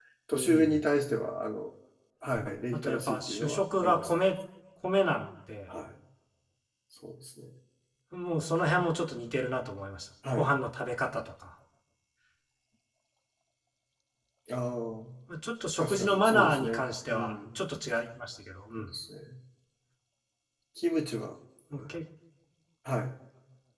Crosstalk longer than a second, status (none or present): present